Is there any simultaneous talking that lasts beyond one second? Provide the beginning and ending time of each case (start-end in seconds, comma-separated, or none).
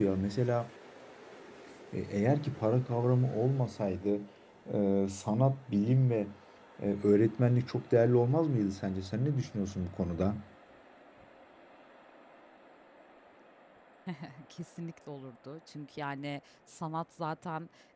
none